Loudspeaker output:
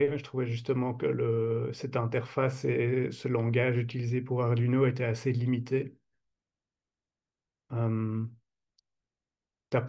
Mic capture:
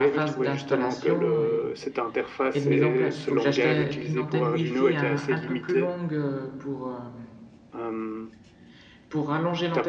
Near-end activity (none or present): present